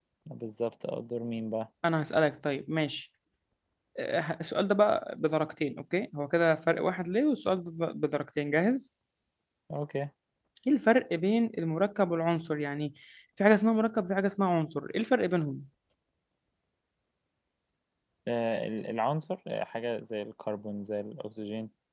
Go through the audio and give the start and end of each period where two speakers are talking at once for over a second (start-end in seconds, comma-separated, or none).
none